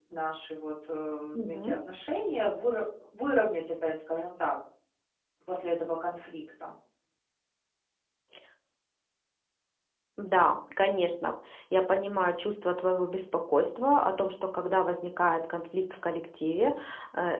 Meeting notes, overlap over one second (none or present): none